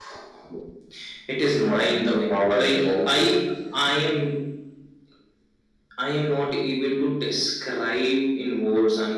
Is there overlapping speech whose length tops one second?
Yes, from 1.6 s

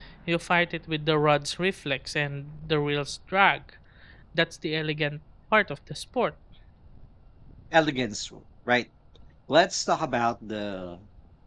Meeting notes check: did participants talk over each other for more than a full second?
No

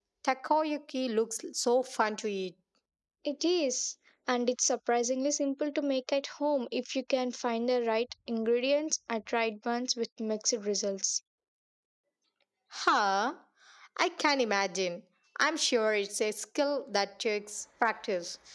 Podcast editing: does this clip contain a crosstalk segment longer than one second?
No

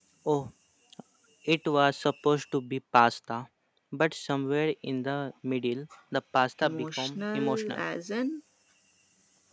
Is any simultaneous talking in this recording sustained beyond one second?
Yes, from 6.6 s

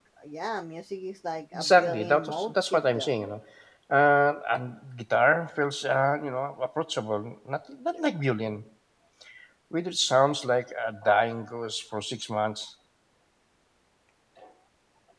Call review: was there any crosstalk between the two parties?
Yes, from 1.5 s

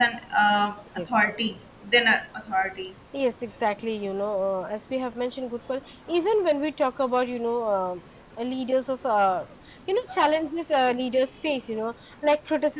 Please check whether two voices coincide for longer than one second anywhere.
No

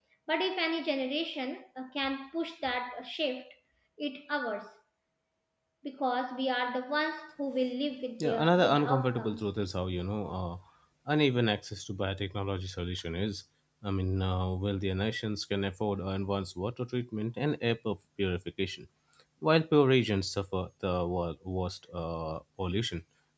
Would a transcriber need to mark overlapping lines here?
Yes, from 8.2 s

